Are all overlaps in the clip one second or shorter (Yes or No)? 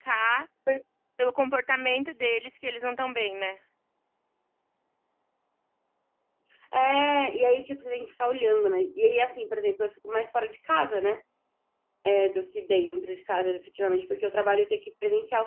Yes